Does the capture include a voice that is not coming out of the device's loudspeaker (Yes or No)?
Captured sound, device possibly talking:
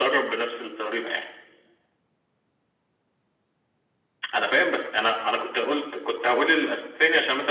No